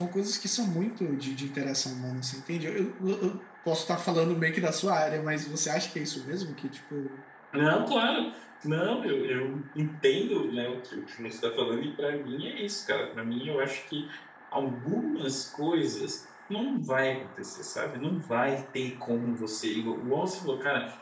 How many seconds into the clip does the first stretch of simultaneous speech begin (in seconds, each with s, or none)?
none